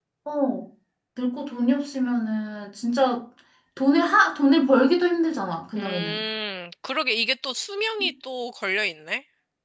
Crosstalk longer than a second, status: none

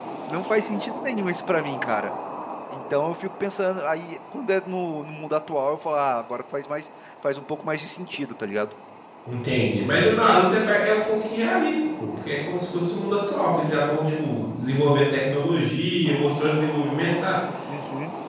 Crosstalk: none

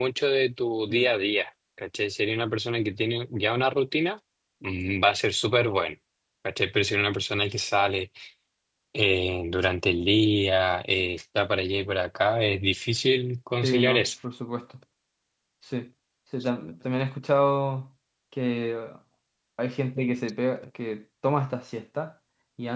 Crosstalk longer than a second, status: none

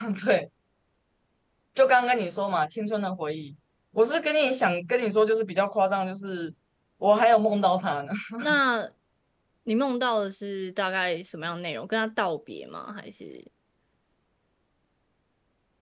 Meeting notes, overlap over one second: none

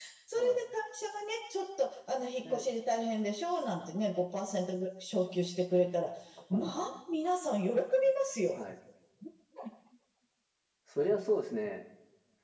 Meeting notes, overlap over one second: none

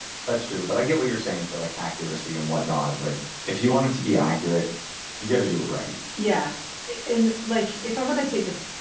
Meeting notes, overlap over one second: none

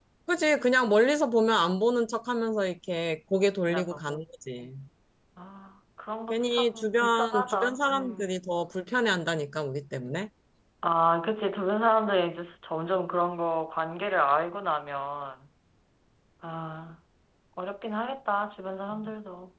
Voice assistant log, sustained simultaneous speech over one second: present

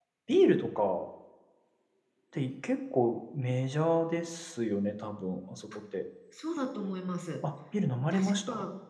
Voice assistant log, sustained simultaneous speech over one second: none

